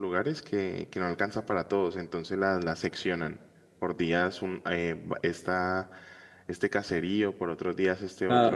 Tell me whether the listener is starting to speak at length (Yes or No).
Yes